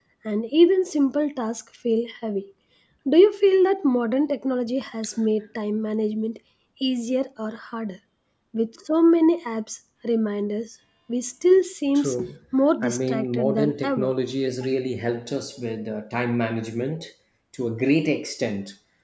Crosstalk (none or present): present